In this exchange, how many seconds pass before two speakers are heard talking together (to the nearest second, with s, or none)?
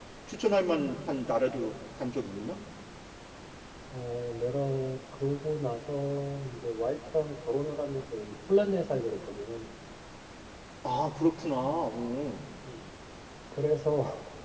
none